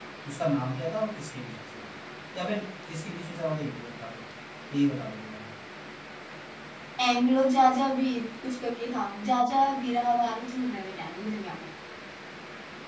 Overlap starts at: none

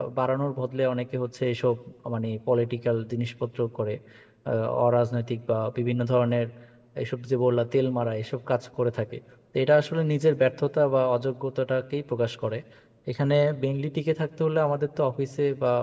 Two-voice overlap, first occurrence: none

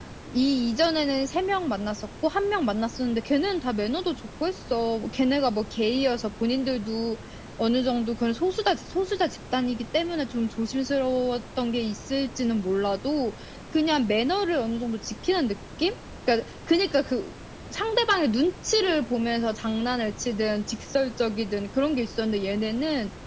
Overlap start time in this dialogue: none

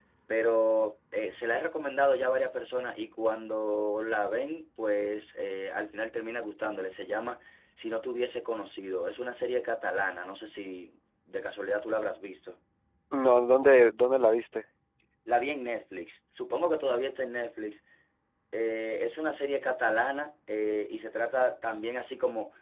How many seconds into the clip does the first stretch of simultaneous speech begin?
none

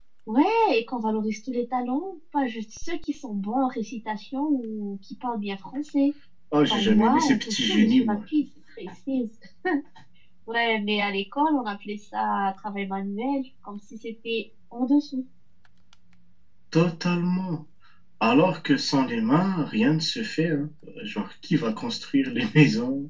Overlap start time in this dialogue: 6.7 s

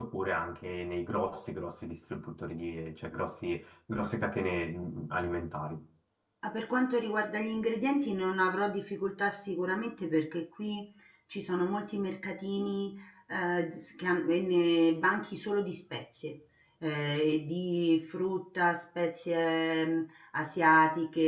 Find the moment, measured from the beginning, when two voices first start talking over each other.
none

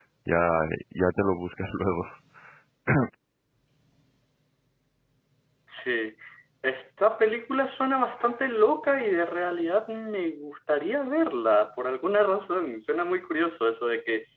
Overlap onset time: none

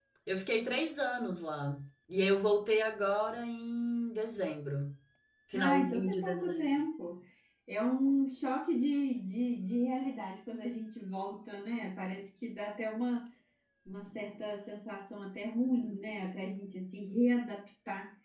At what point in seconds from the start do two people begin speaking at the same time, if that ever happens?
5.5 s

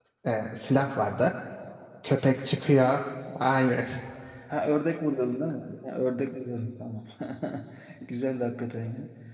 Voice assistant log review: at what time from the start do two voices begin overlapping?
none

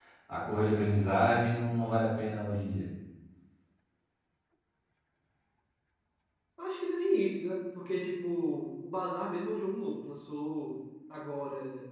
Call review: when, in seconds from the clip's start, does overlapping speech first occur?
none

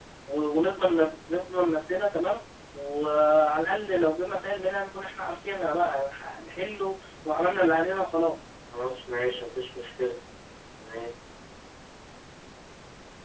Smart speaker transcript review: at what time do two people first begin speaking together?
none

